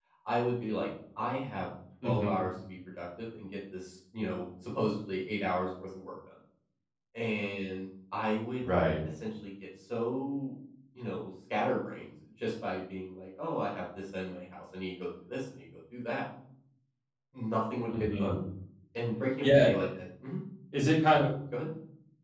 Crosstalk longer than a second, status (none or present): none